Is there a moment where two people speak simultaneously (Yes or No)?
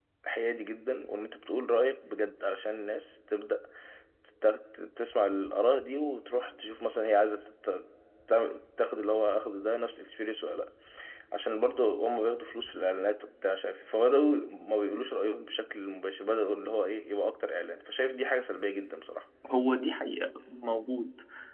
No